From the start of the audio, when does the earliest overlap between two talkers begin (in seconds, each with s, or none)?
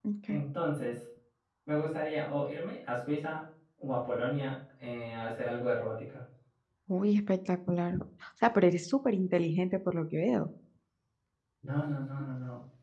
none